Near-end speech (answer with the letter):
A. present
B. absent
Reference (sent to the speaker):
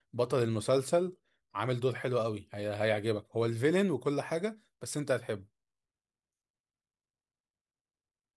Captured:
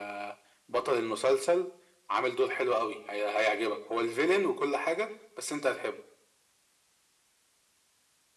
B